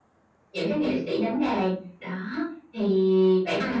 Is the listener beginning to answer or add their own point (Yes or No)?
Yes